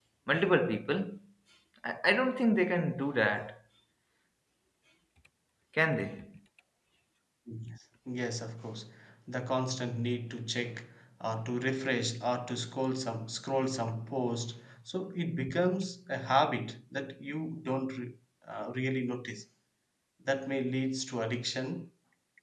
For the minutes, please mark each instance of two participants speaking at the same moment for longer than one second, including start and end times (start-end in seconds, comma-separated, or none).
none